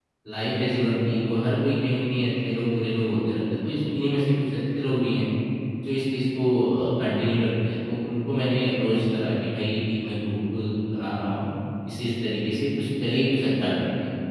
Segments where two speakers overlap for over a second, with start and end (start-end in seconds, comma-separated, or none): none